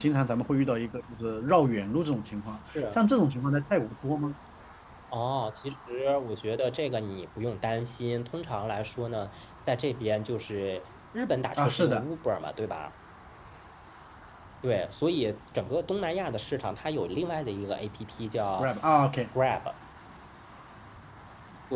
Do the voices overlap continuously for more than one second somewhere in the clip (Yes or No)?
No